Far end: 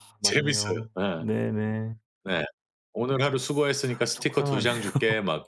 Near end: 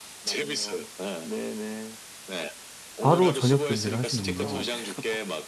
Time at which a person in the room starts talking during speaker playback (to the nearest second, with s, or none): 3 s